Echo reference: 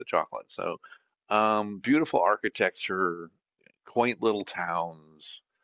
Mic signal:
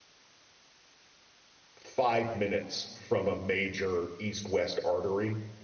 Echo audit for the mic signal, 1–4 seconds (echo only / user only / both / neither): user only